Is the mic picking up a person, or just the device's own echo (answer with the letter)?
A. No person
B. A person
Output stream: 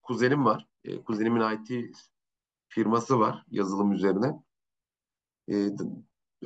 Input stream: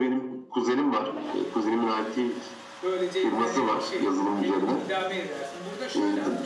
B